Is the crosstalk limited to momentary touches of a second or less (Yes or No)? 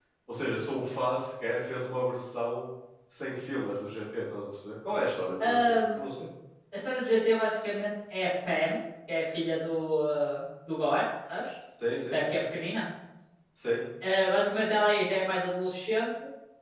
Yes